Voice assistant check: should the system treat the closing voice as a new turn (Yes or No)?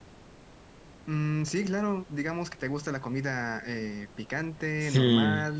Yes